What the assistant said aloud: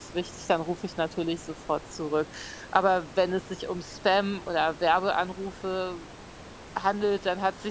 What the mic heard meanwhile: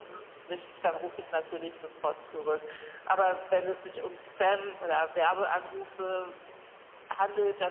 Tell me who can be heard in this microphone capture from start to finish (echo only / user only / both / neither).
echo only